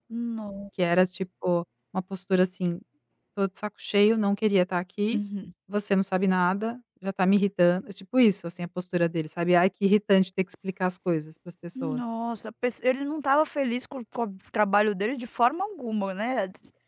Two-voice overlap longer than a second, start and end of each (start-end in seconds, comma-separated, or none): none